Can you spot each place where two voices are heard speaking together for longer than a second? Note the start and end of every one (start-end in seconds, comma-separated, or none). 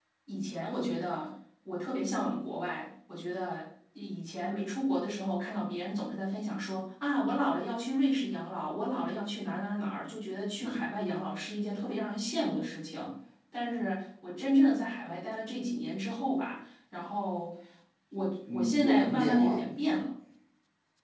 18.5-20.0